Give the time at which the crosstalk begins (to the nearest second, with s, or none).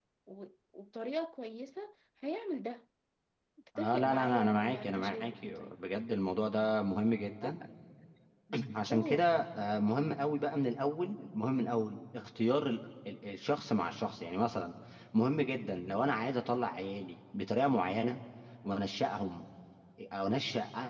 4 s